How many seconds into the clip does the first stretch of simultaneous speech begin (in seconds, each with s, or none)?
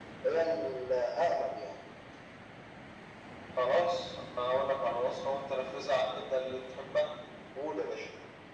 none